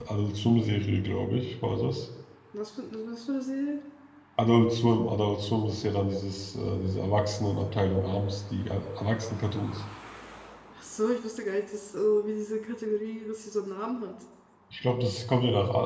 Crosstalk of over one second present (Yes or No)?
No